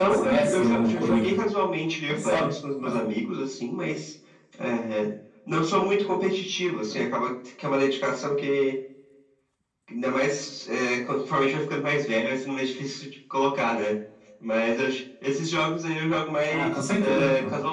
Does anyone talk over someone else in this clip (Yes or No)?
Yes